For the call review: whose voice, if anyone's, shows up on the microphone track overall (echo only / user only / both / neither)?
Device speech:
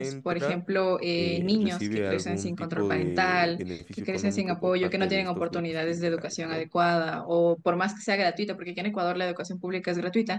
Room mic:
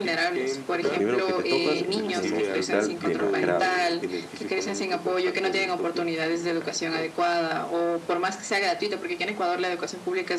both